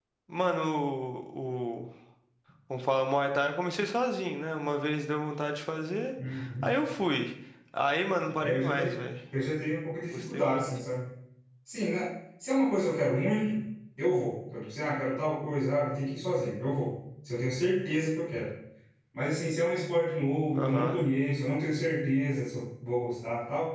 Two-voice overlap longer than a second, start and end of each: none

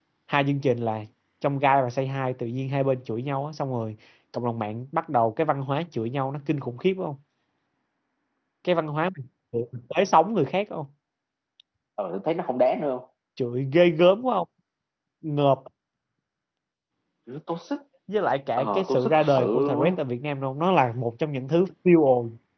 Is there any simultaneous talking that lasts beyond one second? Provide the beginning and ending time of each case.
18.6-19.9

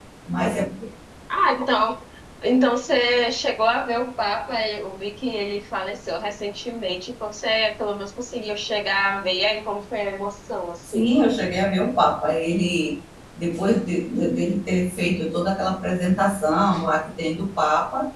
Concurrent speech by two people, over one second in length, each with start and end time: none

